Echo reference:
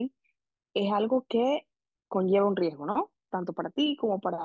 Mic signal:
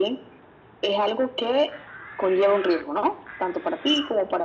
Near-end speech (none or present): none